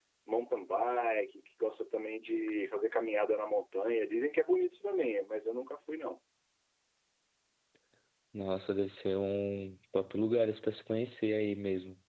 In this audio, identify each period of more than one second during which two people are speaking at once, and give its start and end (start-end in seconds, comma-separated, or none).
none